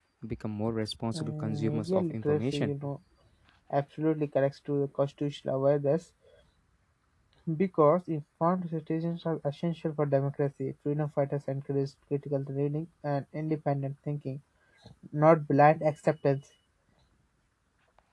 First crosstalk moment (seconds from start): 1.1 s

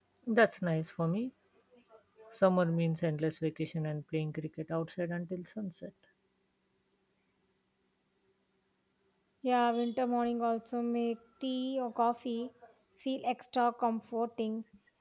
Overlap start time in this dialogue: none

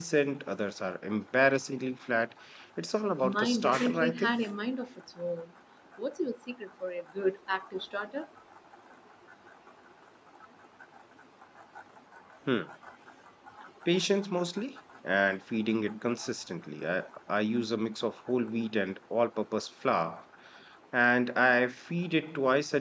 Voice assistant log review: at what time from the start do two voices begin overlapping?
3.2 s

